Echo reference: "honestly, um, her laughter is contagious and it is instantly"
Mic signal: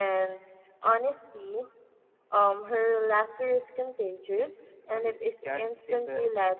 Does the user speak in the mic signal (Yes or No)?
Yes